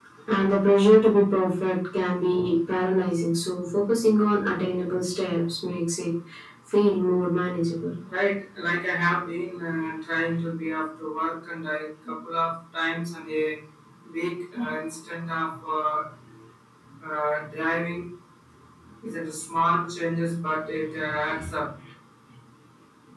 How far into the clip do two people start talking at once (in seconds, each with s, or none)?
none